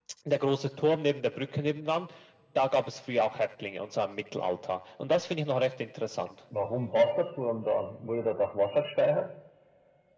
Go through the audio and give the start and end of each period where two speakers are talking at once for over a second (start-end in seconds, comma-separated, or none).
none